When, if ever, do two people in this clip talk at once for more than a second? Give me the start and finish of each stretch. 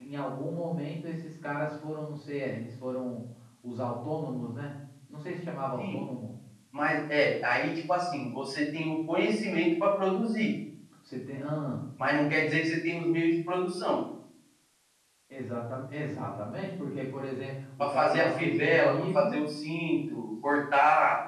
17.8-19.4

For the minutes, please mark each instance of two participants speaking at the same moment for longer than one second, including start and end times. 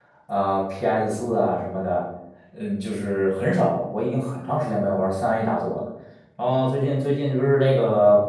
none

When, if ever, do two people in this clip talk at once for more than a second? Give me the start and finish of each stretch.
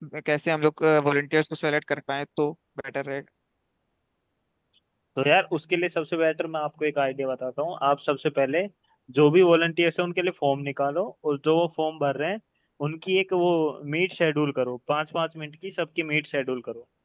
none

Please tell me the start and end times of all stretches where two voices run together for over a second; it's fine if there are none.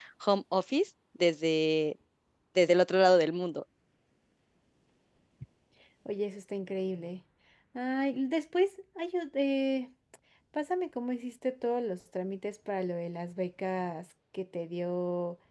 none

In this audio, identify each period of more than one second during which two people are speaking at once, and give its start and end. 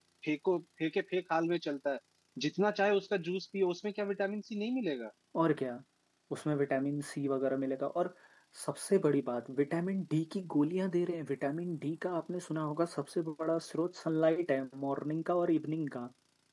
none

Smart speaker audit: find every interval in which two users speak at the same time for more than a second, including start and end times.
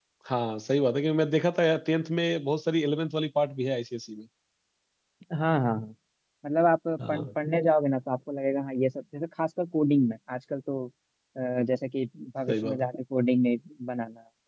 none

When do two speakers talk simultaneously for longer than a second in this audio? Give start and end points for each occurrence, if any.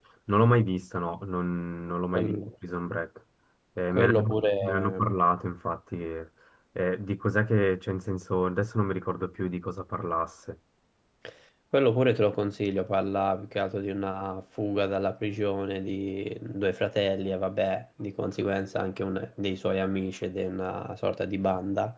3.9-5.1

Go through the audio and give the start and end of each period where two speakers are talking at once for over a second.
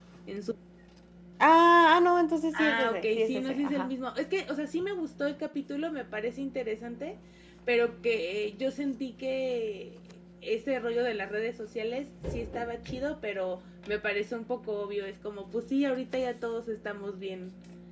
2.6-3.9

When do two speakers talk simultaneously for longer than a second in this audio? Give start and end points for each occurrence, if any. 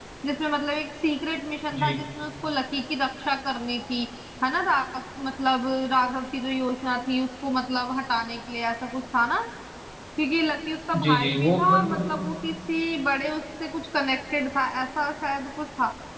11.0-12.3

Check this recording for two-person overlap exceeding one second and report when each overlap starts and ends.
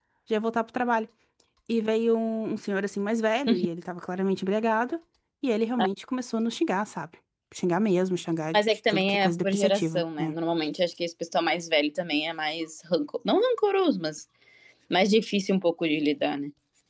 8.5-10.3

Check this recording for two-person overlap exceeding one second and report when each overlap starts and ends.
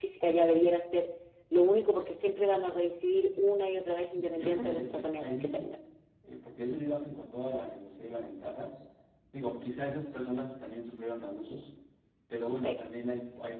4.1-5.7

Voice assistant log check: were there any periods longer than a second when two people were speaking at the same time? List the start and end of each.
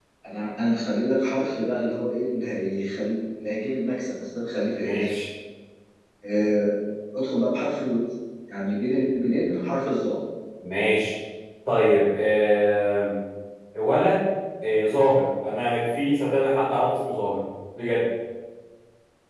none

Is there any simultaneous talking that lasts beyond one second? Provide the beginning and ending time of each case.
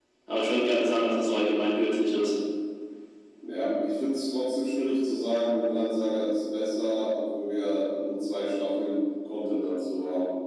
none

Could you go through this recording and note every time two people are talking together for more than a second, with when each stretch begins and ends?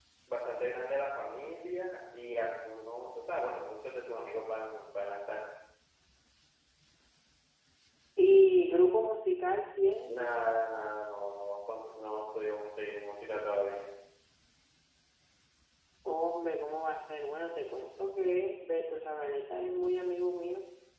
none

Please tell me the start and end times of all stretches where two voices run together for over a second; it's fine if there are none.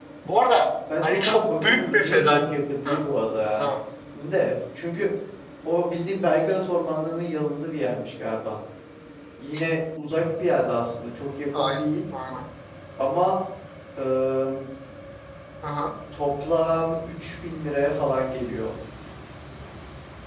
1.0-2.4

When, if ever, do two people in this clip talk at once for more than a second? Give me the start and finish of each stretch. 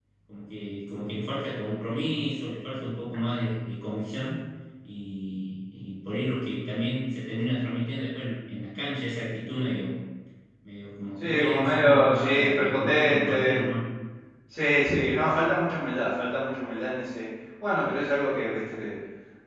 11.2-13.6

